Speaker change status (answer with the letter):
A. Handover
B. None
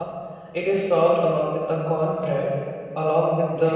B